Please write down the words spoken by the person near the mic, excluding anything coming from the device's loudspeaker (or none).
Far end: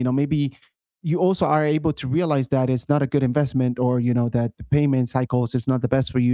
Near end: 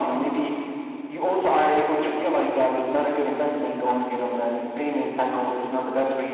none